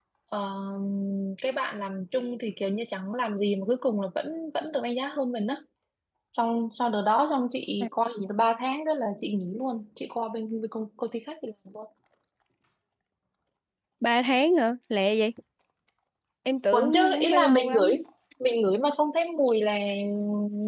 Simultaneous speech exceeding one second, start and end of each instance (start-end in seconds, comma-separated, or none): 16.7-17.9